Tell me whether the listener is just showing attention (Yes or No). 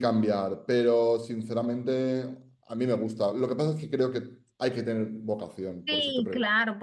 No